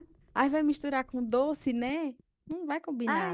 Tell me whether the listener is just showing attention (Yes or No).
No